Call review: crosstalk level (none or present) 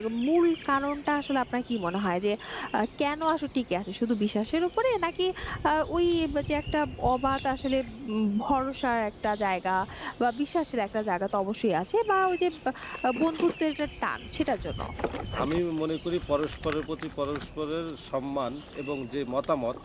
none